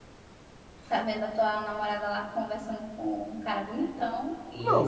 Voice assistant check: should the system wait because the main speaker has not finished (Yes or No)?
No